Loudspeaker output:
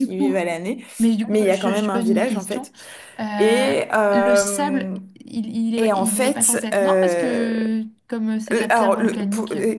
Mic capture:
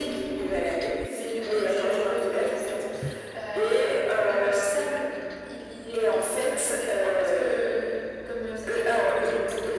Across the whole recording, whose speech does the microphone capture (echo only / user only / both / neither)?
echo only